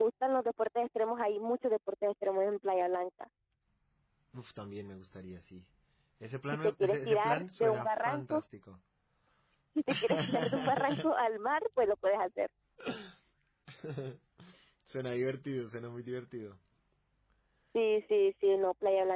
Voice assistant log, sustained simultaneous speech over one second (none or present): present